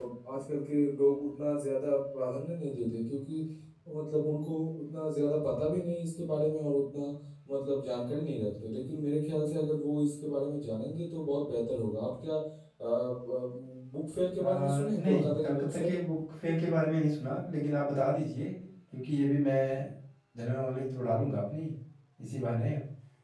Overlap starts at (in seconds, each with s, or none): 14.4 s